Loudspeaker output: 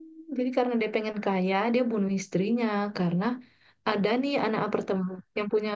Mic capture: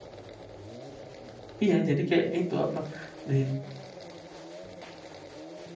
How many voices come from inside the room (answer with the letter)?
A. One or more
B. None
A